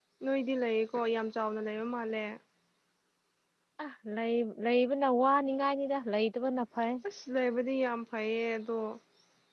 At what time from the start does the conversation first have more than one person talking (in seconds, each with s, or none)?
none